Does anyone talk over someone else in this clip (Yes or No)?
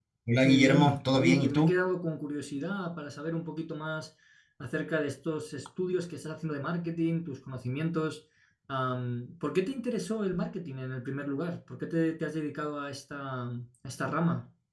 Yes